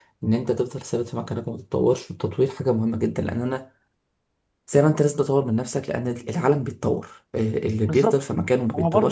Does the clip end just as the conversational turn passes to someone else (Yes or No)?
Yes